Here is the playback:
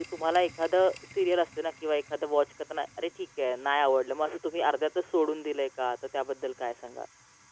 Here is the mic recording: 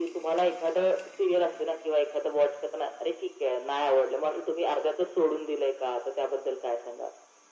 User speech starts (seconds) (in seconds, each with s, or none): none